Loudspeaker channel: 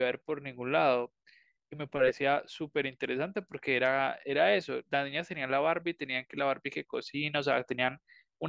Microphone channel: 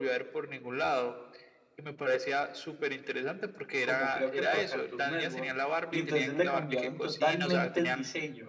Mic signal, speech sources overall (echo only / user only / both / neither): both